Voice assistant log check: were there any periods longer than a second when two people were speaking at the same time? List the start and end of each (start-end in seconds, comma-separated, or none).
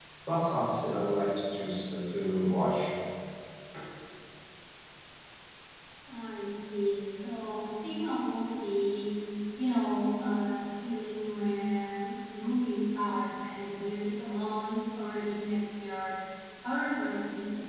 none